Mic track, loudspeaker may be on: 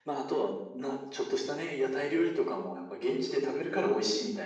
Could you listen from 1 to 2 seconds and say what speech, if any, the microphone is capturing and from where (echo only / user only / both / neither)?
echo only